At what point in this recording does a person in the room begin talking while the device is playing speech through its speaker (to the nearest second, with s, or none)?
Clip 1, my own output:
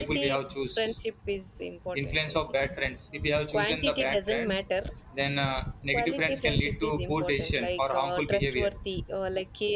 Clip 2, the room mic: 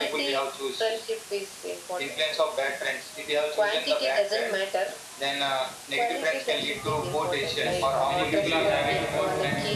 7 s